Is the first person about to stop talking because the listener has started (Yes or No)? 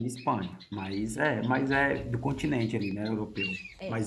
No